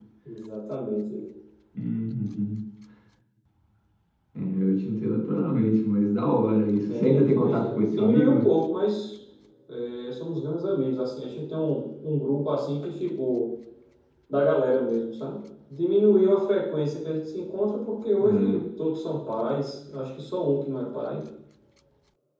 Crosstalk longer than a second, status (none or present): present